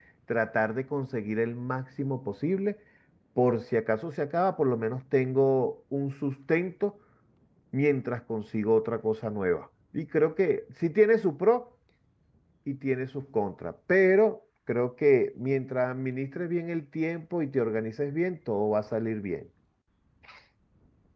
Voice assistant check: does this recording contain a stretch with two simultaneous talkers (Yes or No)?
No